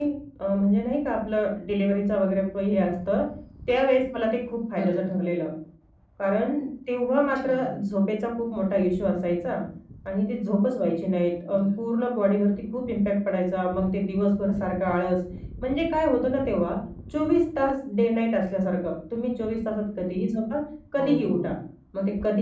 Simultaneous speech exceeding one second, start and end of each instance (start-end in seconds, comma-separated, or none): none